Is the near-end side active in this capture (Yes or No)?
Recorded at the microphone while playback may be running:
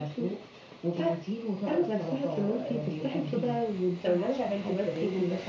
No